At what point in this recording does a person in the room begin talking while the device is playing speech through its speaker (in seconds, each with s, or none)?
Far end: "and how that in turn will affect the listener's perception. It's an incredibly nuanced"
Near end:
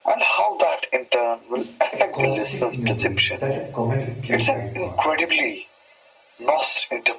1.5 s